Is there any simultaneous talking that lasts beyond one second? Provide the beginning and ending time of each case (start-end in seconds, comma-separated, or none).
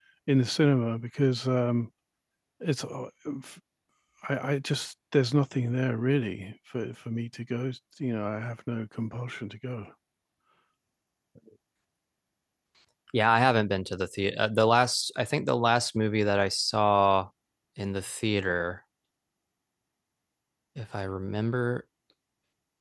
none